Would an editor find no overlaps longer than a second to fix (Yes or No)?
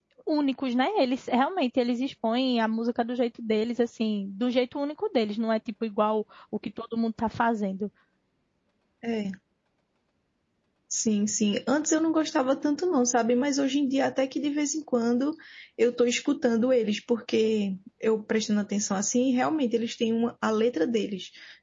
Yes